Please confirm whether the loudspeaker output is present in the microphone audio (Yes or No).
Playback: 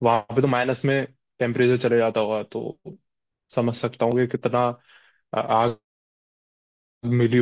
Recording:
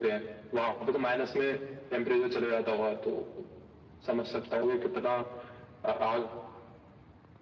Yes